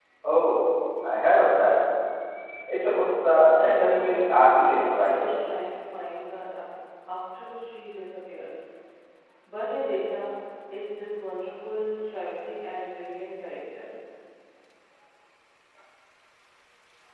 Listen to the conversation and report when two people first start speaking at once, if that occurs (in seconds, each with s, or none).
3.5 s